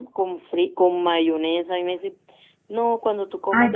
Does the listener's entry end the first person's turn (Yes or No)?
Yes